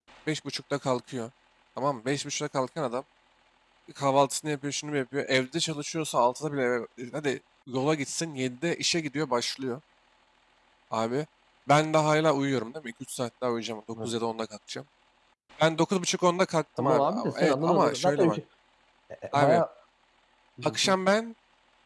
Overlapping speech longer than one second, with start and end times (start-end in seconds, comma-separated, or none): 16.8-18.4